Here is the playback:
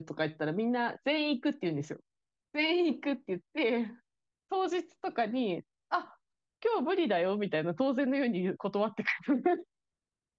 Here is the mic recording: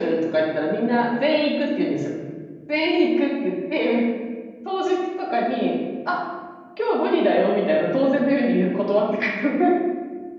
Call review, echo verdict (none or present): present